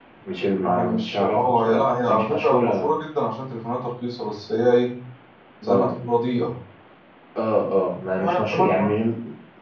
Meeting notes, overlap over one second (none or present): present